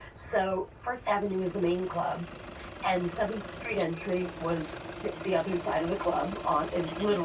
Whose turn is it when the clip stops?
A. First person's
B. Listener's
A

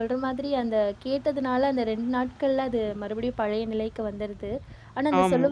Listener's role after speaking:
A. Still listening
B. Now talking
A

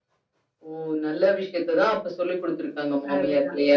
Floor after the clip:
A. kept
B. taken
B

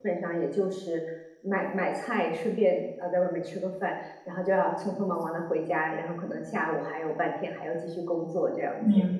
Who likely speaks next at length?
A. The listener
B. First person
A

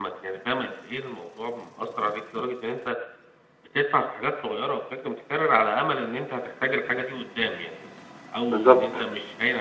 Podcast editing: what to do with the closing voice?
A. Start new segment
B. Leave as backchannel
B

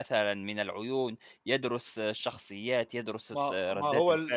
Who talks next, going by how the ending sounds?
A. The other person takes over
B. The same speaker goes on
A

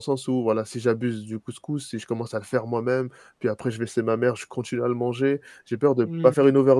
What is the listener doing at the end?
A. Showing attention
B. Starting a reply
A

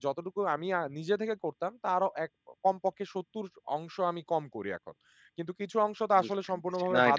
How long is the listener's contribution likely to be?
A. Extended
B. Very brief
A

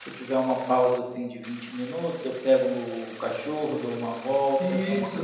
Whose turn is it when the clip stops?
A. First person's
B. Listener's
A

